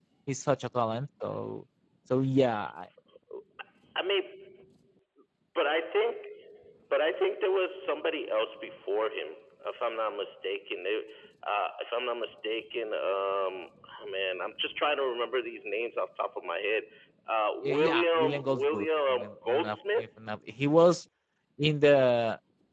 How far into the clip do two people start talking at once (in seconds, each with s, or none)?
17.6 s